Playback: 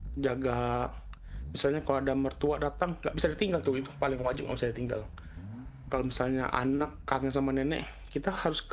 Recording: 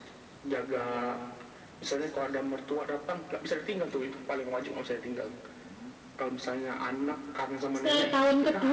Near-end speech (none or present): present